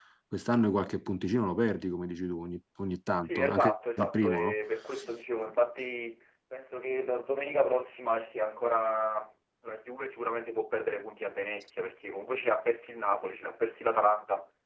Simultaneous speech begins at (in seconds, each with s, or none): 3.2 s